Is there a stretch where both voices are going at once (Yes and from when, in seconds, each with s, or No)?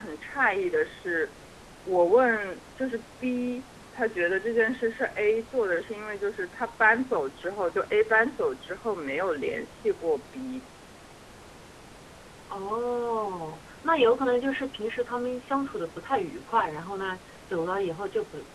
No